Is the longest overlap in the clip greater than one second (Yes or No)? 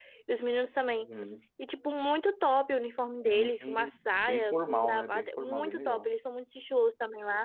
Yes